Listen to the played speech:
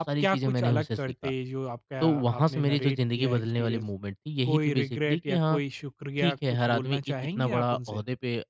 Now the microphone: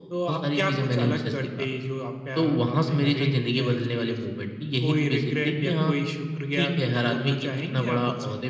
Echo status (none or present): present